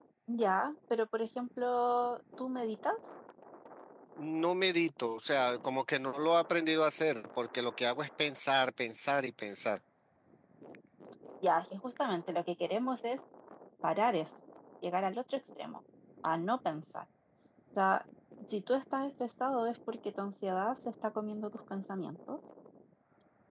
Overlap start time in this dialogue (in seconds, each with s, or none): none